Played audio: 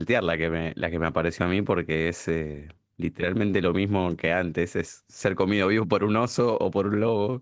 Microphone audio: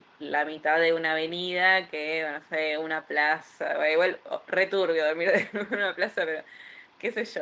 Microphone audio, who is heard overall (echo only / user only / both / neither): user only